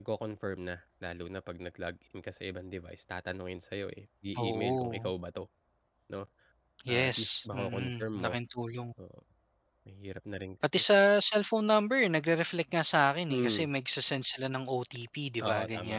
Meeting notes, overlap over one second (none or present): present